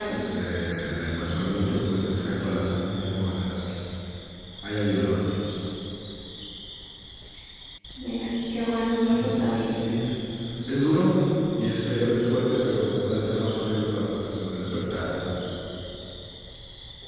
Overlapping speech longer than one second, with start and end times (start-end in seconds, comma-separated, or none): none